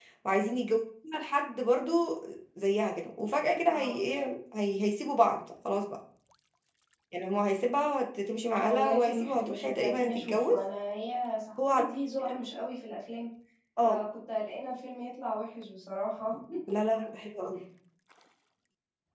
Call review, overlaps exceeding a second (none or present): present